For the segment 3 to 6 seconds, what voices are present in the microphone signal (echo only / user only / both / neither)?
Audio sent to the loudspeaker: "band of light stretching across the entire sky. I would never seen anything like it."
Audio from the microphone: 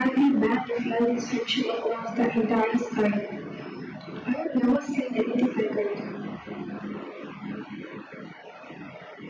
echo only